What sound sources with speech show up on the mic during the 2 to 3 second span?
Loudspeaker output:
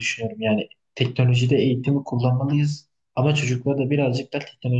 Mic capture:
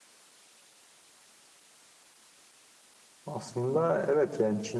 neither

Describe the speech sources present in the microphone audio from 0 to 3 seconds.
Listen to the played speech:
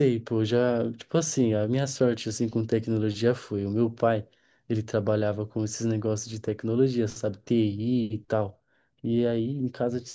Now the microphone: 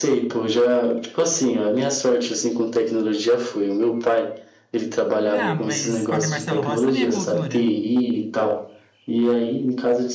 echo only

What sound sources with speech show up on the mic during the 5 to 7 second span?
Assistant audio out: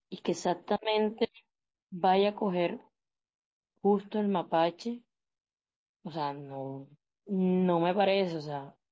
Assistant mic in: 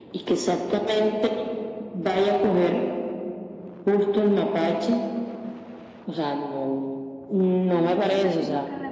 echo only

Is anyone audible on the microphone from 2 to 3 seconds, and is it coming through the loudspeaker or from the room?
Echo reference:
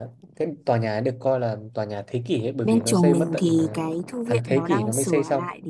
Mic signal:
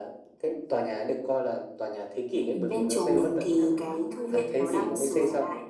both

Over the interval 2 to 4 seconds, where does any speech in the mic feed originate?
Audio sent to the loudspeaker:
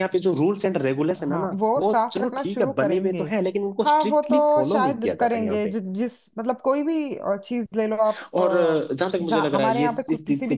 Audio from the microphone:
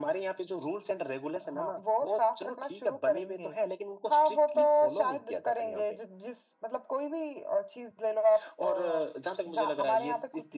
echo only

